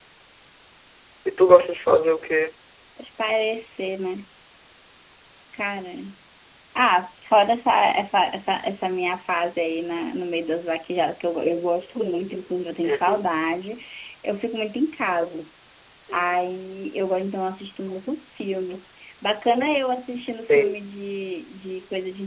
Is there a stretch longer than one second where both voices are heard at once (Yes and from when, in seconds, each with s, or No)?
No